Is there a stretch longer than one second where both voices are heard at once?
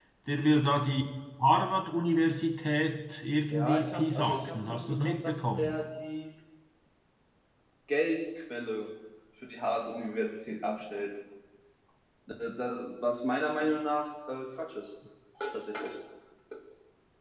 Yes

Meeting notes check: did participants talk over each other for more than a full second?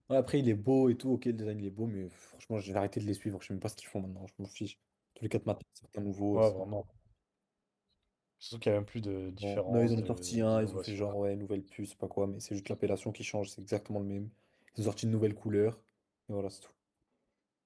Yes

